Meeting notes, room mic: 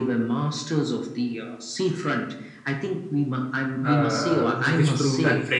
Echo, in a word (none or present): present